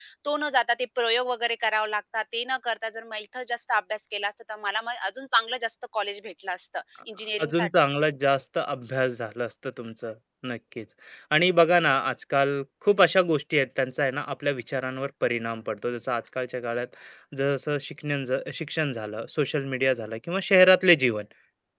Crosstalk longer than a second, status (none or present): none